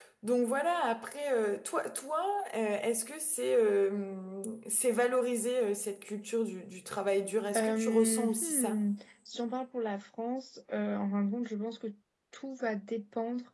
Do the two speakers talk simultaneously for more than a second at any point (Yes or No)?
Yes